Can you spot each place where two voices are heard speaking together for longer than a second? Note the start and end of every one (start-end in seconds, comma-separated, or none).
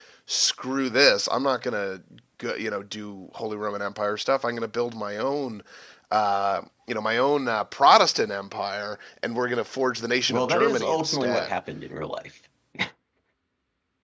10.3-11.5